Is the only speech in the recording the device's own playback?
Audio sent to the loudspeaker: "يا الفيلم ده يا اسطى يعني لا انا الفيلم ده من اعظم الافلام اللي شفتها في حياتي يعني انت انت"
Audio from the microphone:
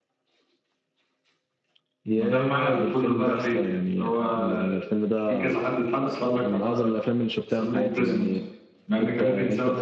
No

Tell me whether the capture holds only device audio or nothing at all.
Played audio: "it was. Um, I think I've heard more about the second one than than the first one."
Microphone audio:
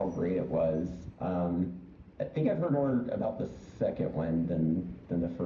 Yes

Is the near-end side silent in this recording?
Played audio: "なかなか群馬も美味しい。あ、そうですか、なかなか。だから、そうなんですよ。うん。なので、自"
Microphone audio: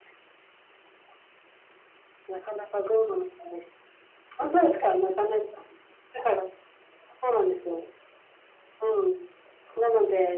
Yes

